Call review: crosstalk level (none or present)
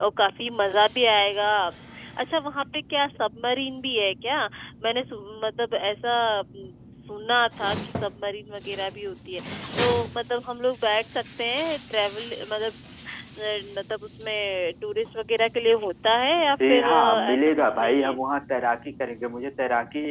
present